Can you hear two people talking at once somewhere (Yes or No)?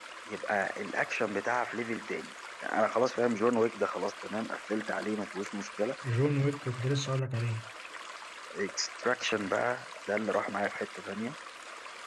No